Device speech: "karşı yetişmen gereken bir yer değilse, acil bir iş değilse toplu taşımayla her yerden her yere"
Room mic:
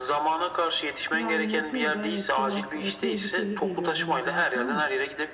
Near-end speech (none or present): present